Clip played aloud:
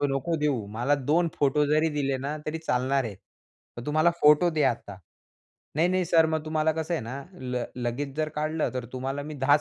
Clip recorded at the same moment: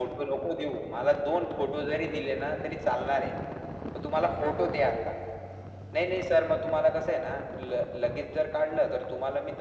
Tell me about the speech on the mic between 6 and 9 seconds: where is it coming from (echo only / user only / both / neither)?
echo only